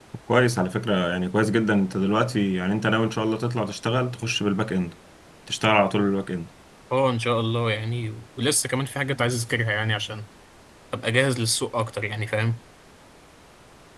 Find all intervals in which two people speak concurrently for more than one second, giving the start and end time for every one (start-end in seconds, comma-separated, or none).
none